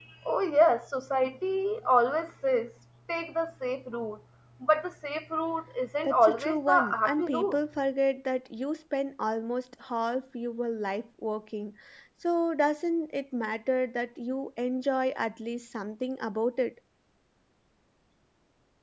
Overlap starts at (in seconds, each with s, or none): 6.0 s